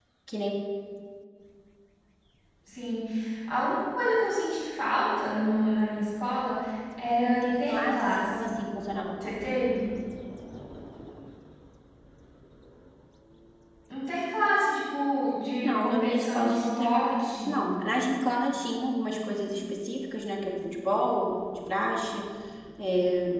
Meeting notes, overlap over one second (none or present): present